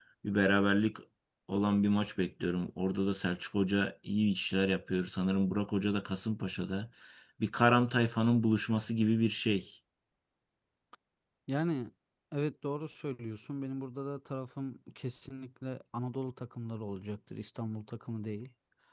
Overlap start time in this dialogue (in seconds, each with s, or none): none